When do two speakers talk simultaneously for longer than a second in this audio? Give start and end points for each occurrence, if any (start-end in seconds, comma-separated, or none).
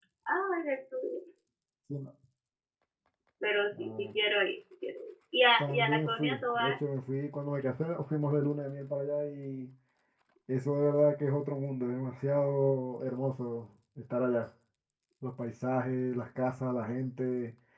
5.6-6.8